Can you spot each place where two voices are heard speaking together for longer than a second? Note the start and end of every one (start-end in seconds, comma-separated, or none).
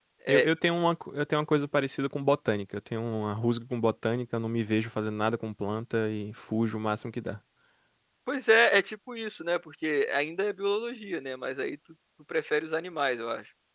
none